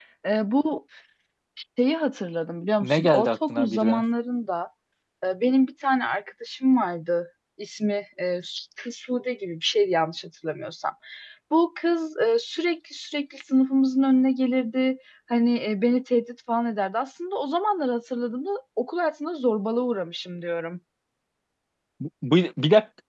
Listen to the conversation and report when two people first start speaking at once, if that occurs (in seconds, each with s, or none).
2.8 s